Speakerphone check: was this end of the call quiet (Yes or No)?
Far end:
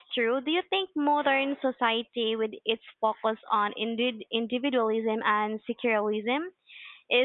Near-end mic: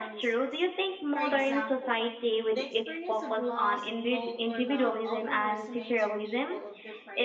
No